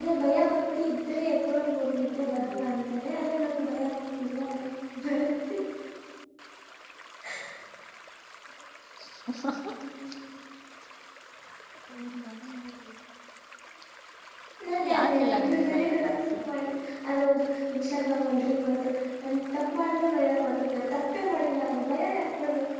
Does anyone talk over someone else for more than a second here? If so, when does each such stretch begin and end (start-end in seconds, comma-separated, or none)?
14.9-16.3